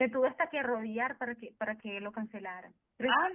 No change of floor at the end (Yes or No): No